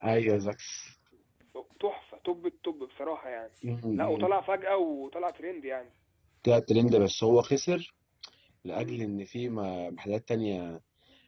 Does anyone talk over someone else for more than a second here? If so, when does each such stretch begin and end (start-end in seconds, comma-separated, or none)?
none